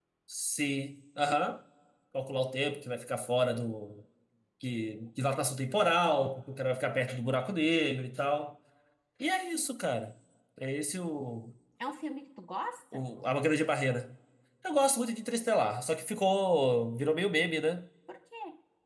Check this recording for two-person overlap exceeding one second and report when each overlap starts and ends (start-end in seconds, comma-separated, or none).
none